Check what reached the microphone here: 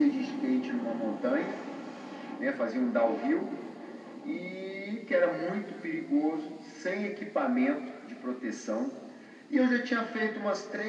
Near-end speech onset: none

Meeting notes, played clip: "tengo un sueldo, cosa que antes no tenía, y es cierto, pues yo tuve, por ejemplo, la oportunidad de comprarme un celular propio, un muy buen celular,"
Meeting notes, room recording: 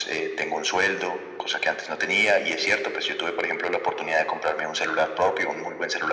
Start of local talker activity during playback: none

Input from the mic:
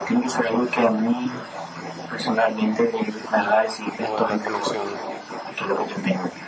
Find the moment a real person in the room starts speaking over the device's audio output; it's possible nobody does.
4 s

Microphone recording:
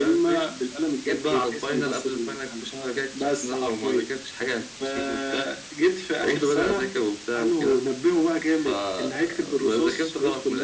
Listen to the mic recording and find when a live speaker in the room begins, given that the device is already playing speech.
none

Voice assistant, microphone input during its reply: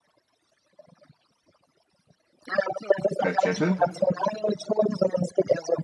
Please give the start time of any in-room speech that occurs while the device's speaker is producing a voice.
3 s

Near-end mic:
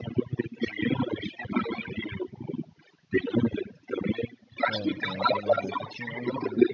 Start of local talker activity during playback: 5 s

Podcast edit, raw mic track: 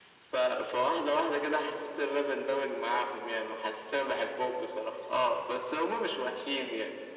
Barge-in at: none

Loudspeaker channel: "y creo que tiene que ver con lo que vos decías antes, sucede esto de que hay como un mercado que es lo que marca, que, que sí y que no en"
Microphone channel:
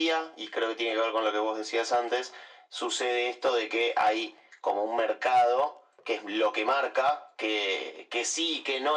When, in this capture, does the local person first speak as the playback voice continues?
none

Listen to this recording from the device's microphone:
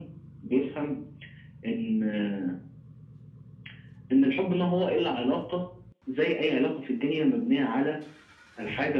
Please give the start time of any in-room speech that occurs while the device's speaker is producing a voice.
none

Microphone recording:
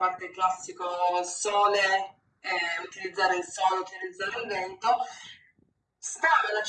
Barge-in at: none

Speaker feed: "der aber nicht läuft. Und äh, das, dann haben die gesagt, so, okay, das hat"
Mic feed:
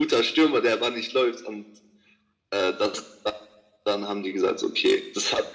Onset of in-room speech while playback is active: none

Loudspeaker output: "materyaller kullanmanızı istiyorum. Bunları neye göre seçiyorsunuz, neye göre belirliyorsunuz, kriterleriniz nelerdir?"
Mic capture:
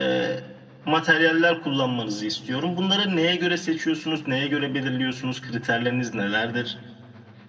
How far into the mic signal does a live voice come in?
none

